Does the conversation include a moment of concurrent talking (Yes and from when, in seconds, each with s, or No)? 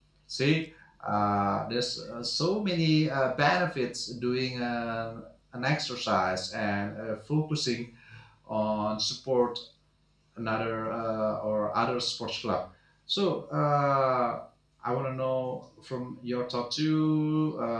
No